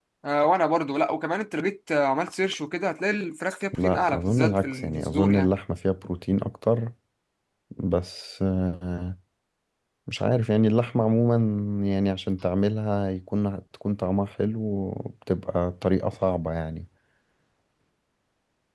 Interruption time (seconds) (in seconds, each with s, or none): 3.7 s